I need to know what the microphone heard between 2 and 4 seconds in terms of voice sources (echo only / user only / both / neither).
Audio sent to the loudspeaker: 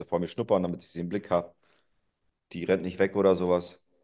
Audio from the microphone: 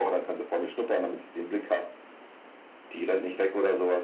echo only